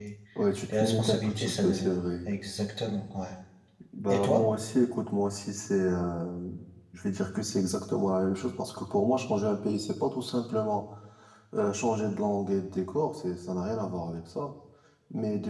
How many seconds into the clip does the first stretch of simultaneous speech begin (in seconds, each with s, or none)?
0.7 s